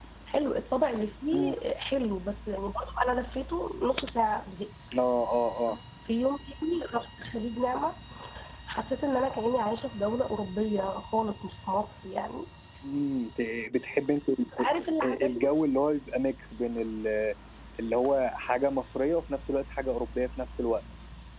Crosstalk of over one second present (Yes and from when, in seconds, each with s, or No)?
No